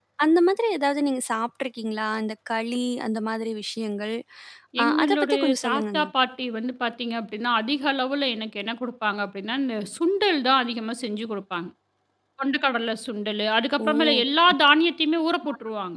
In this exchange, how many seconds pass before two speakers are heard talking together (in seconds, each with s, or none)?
4.8 s